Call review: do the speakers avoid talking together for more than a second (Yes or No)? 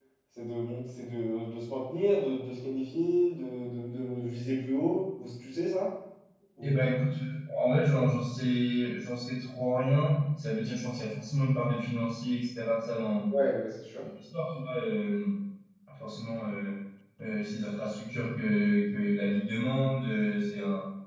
Yes